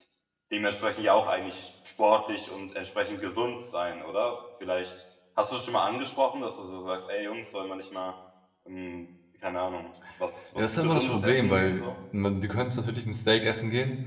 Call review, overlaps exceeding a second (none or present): present